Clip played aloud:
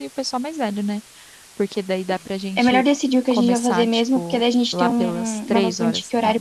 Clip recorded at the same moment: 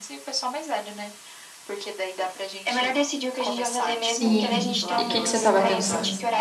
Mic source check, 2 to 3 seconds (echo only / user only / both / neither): echo only